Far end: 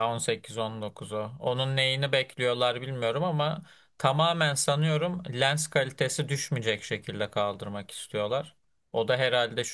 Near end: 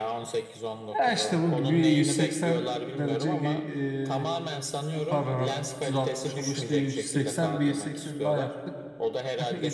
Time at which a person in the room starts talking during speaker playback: 1 s

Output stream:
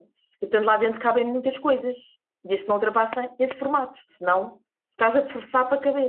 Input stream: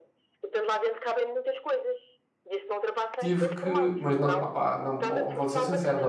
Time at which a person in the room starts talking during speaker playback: 3 s

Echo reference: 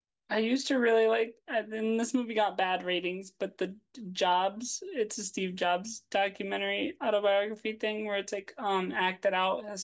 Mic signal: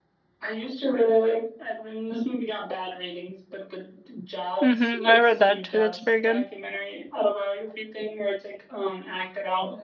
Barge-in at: 5 s

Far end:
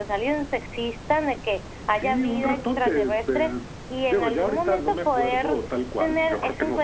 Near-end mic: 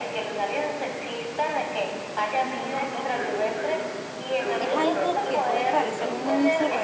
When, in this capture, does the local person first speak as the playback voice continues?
5 s

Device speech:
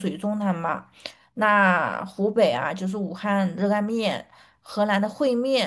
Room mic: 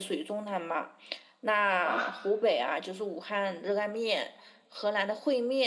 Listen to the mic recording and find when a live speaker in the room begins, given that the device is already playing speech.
2 s

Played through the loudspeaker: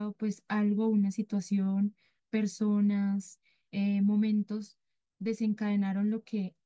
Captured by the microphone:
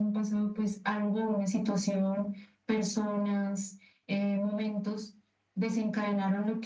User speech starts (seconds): none

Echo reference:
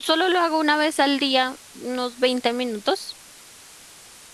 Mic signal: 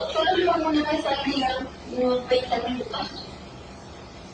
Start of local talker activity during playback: none

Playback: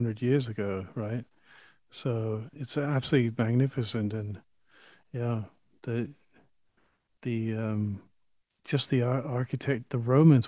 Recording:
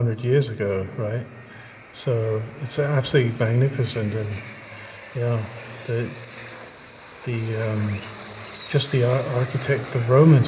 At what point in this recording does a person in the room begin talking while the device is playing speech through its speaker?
none

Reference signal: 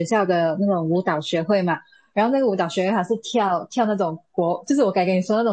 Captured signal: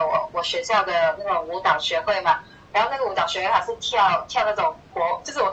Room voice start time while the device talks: none

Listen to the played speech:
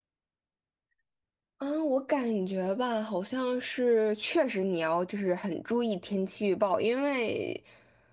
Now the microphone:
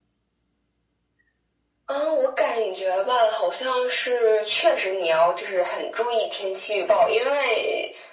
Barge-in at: none

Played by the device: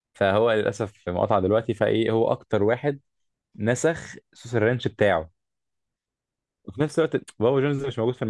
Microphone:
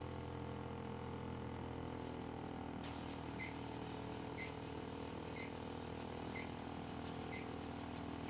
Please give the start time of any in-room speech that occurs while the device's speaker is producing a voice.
none

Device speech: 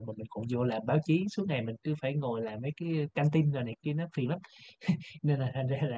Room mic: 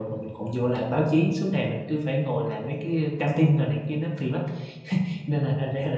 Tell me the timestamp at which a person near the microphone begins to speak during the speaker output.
none

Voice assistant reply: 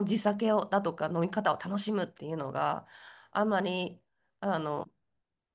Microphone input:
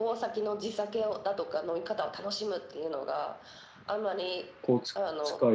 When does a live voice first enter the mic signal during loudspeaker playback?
5 s

